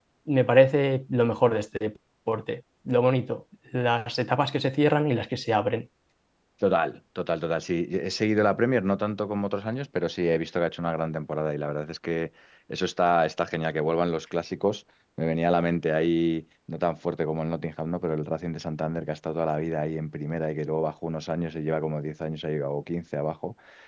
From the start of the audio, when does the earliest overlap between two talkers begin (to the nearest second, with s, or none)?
none